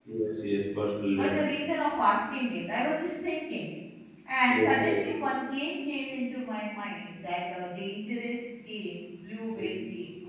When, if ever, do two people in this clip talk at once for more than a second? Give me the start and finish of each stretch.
none

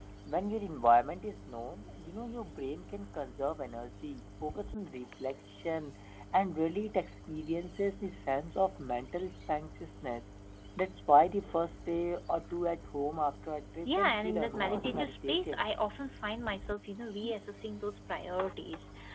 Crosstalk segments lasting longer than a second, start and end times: 13.8-15.6

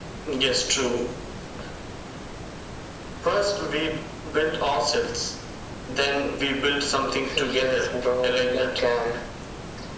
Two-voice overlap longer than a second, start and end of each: 7.3-8.8

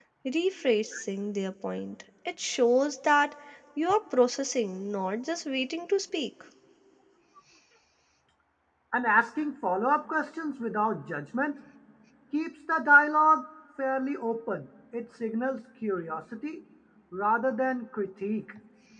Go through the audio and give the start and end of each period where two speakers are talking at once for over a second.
none

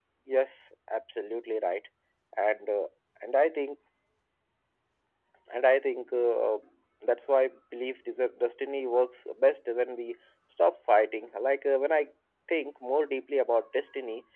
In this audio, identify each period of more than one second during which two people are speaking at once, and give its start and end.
none

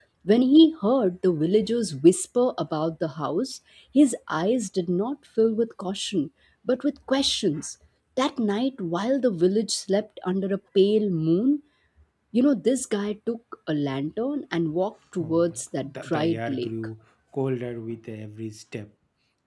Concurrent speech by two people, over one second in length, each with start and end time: 15.2-16.7

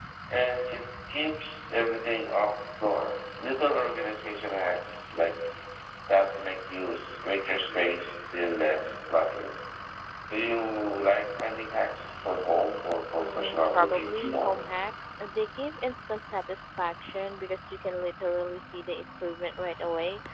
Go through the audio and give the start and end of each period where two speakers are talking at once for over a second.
13.2-14.5

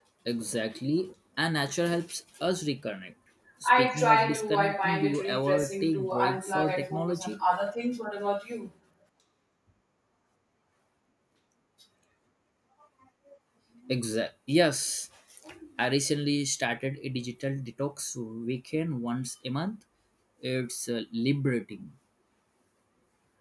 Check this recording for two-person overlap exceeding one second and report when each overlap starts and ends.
3.6-7.4

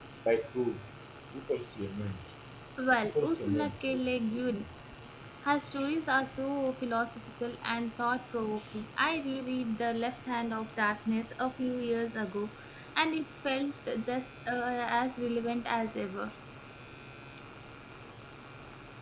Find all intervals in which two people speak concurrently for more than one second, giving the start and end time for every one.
3.0-4.6

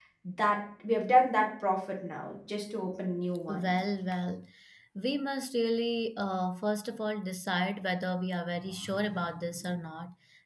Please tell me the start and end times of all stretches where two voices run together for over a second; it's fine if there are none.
none

